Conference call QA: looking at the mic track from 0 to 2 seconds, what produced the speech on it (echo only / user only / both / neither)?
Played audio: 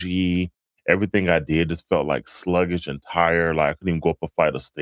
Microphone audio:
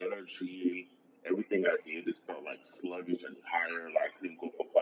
echo only